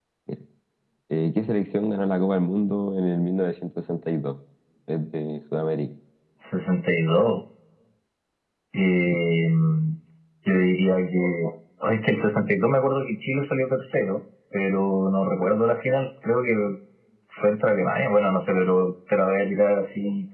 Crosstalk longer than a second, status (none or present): none